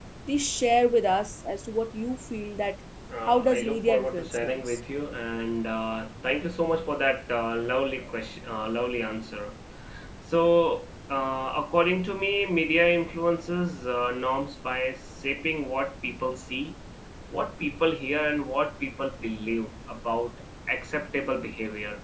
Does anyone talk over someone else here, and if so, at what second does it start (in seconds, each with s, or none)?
3.3 s